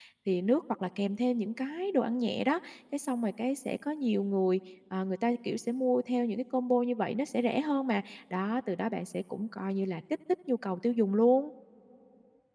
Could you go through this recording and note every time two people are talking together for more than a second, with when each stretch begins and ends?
none

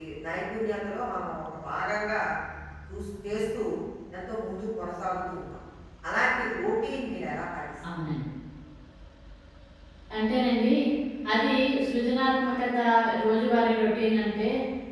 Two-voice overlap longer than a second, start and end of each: none

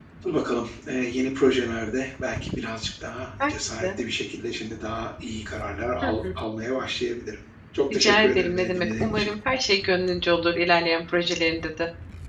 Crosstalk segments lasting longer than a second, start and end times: 7.9-9.3

